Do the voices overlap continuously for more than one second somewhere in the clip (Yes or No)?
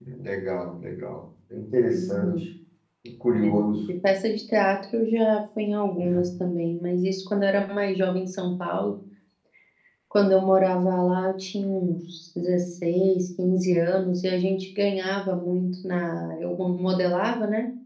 No